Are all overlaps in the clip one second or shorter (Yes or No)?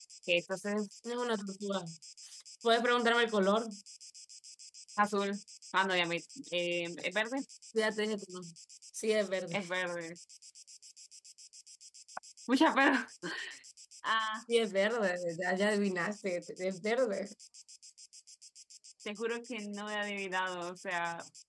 Yes